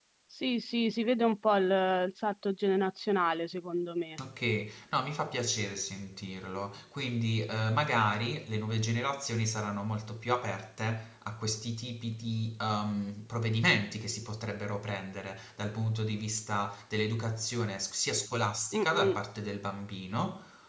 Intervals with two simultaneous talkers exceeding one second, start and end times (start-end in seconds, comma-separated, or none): none